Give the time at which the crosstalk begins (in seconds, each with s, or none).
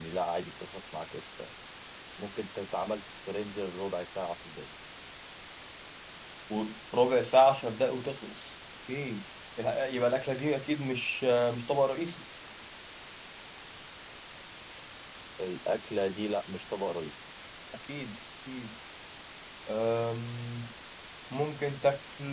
none